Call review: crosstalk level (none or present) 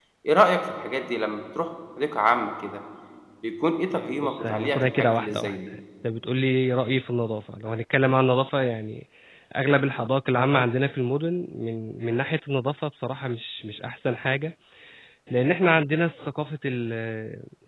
present